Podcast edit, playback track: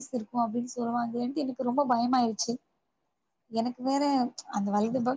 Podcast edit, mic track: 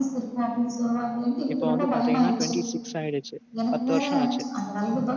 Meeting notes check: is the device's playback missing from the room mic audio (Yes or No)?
No